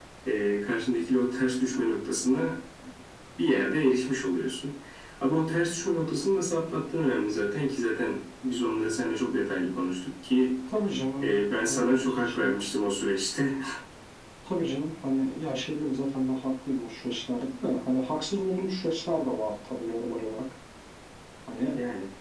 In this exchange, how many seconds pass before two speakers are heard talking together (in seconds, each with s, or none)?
11.2 s